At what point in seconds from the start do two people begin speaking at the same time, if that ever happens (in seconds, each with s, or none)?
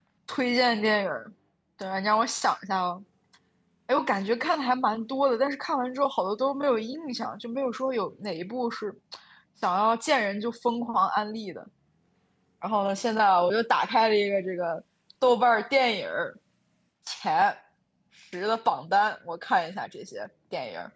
none